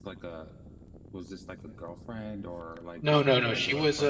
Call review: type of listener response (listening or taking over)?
taking over